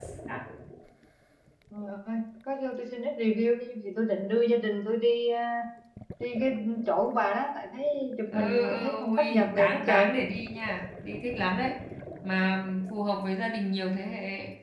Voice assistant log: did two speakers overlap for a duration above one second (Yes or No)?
Yes